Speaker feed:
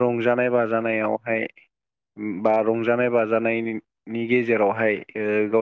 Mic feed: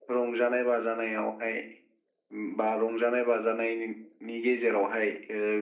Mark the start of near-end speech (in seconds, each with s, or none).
none